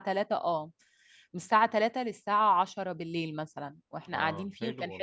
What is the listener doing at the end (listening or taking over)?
taking over